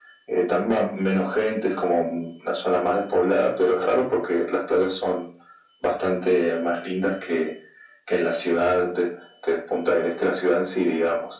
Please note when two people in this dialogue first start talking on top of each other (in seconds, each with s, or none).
none